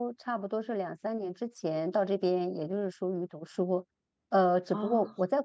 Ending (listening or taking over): listening